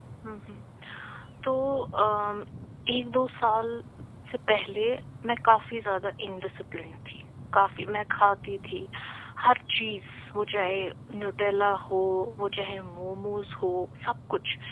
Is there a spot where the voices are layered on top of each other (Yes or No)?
No